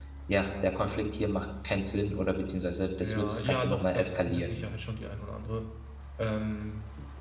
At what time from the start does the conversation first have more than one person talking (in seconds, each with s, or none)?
3.0 s